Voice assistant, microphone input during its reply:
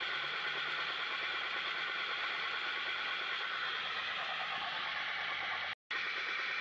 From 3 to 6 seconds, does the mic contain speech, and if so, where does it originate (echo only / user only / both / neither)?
neither